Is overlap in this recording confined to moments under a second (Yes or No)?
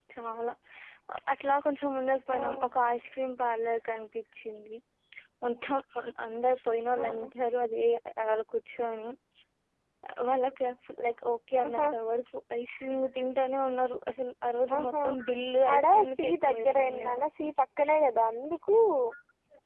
No